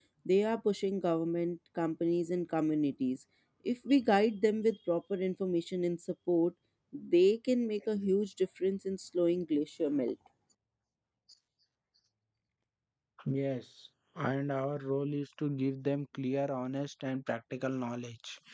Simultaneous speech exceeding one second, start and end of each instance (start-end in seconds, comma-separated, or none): none